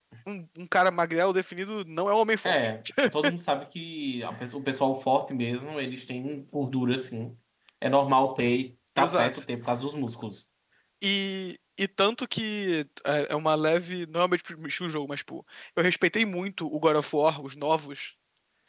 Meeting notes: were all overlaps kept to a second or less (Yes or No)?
Yes